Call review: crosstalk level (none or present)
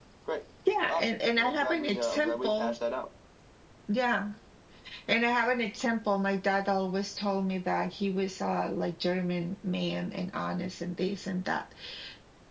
present